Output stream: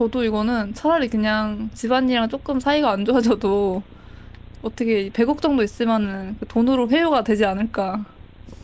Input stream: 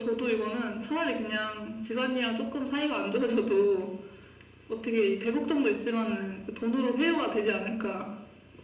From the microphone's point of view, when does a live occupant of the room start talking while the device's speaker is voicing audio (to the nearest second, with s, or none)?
none